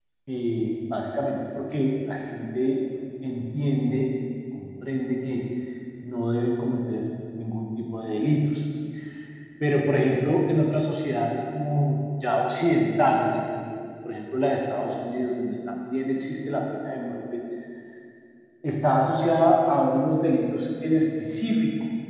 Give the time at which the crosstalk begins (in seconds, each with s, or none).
none